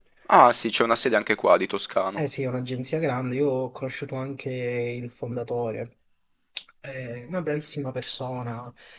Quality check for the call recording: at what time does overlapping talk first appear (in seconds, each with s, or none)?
none